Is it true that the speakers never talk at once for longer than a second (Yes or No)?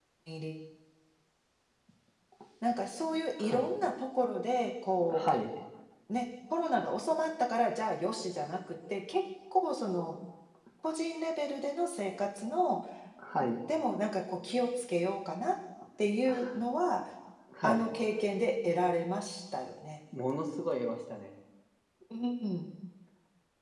Yes